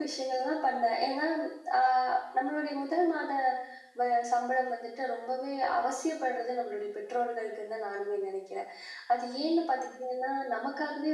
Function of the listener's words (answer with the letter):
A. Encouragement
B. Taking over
A